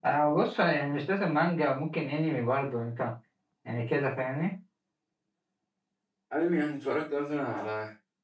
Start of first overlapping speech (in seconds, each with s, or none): none